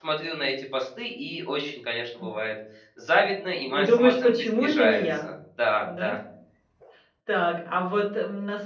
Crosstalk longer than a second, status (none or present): present